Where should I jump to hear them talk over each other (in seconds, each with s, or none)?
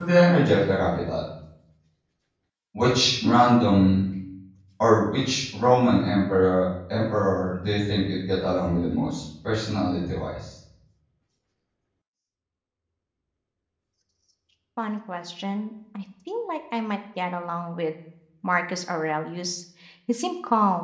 none